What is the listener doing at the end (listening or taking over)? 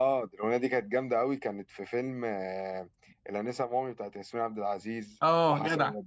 taking over